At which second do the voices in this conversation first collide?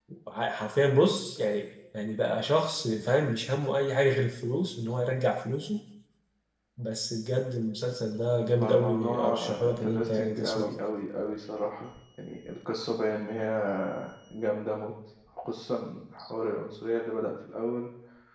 9 s

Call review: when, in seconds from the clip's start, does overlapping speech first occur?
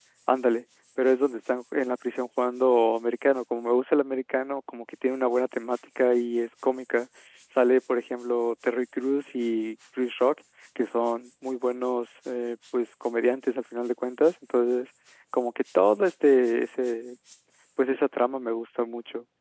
none

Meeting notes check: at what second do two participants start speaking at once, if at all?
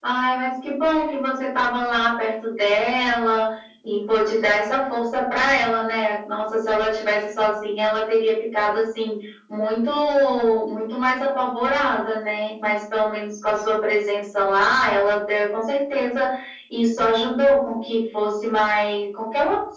none

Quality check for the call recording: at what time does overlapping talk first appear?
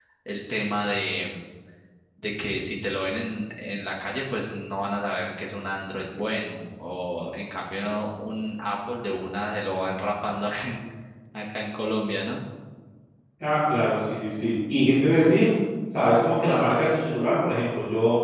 none

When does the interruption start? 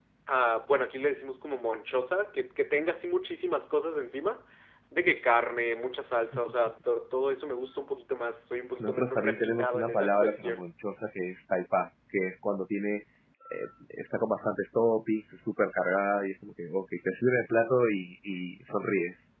9 s

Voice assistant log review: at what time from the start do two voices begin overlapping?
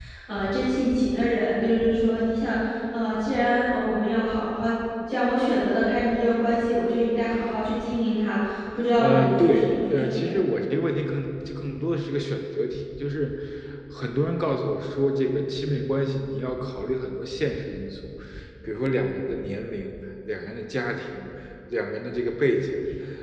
9 s

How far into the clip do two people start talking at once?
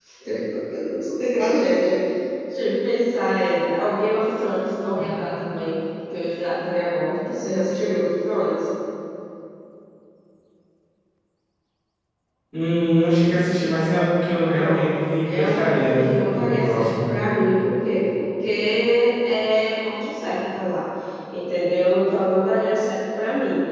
15 s

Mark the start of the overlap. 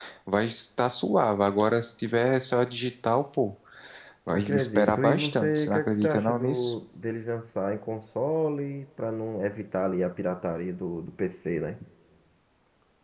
4 s

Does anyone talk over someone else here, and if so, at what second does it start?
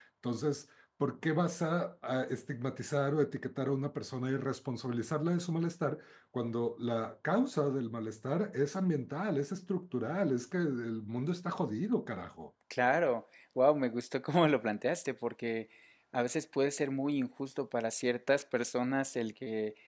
none

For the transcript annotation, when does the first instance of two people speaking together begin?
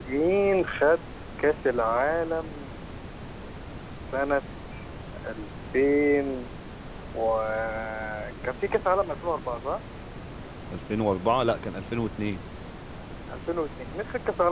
none

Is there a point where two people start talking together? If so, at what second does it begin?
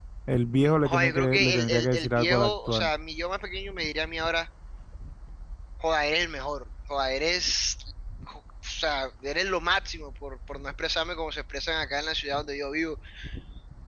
1 s

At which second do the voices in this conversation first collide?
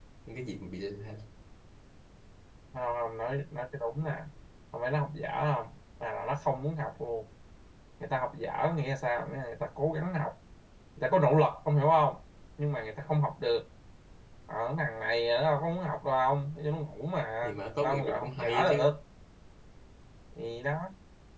17 s

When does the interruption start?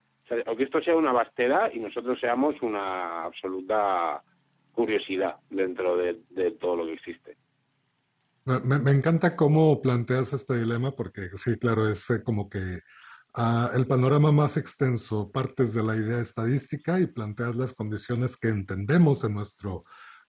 none

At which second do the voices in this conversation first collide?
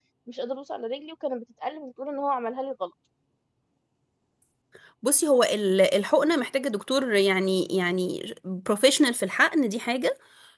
none

